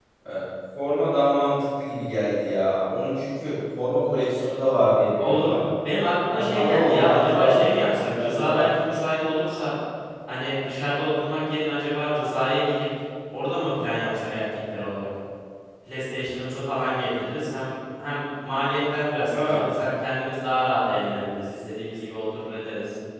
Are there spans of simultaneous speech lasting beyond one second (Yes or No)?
Yes